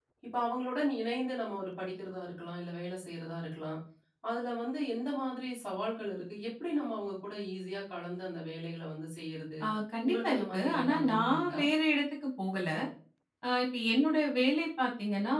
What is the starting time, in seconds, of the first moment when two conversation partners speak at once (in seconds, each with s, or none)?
10.1 s